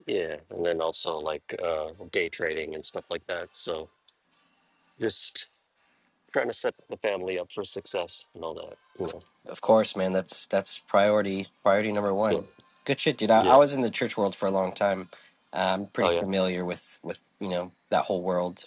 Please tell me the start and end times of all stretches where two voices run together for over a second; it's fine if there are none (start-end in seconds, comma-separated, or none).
none